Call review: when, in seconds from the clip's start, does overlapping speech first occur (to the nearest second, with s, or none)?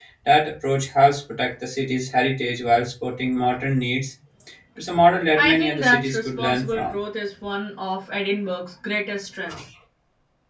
5 s